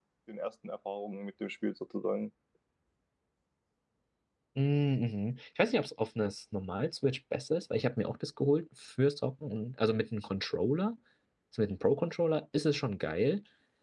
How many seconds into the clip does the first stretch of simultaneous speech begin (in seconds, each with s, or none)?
none